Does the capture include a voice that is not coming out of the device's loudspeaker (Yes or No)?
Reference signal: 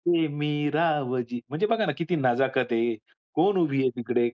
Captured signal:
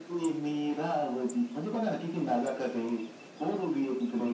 No